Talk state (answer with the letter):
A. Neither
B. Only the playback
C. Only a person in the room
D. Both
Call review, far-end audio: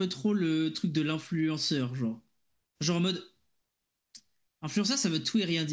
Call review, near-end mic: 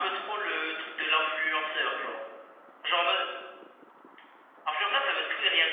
B